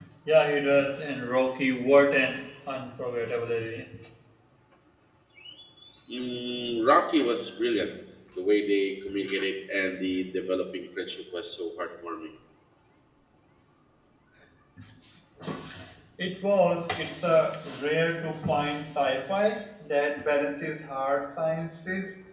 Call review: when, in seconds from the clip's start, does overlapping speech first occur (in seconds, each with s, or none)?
none